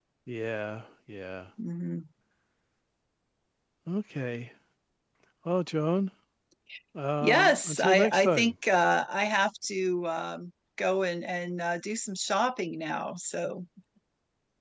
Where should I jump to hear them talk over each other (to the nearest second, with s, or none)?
7 s